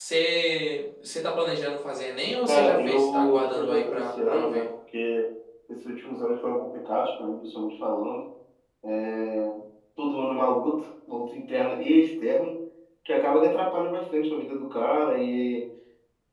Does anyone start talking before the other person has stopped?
Yes, from 2.5 s

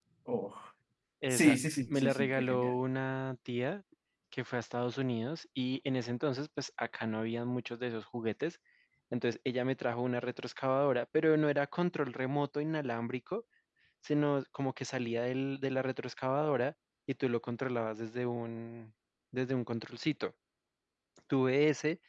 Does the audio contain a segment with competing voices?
Yes, from 1.3 s

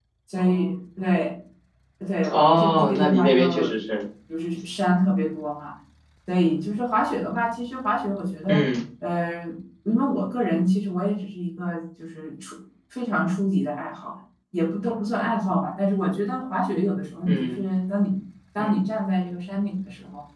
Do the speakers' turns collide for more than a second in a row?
Yes, from 2.3 s

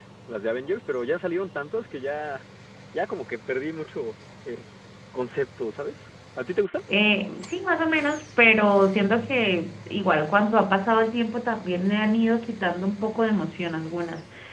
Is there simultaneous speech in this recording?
No

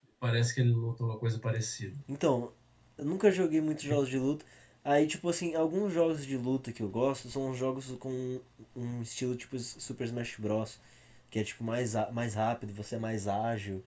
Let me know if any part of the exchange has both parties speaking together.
No

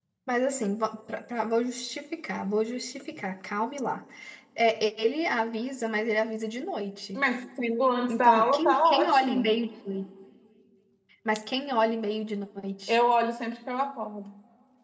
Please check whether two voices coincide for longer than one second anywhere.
Yes, from 8.1 s

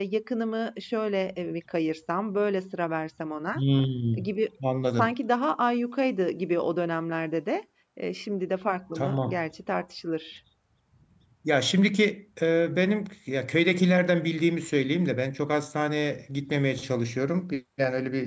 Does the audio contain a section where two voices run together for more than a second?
No

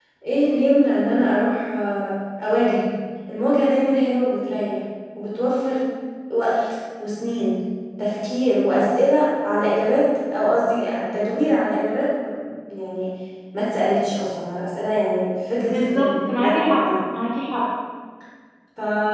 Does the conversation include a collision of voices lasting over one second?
Yes, from 15.6 s

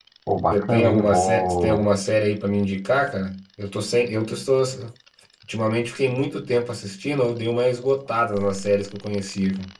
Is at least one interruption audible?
Yes, from 0.5 s

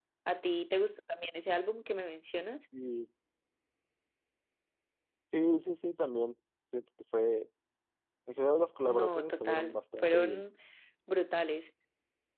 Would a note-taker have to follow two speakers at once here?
Yes, from 8.9 s

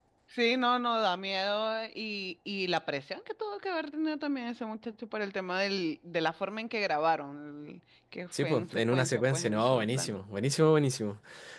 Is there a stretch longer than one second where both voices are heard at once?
Yes, from 8.3 s

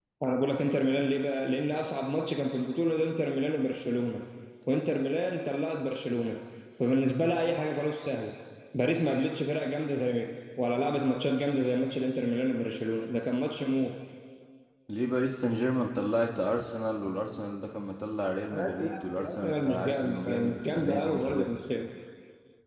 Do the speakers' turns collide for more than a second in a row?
Yes, from 18.5 s

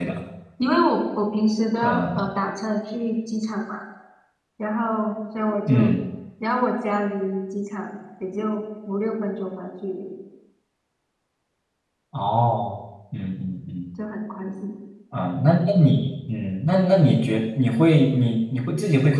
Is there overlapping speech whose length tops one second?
No

